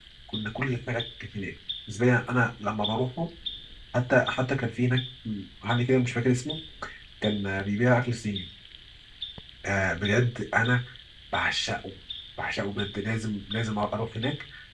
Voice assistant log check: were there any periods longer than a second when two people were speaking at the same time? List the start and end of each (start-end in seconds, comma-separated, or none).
none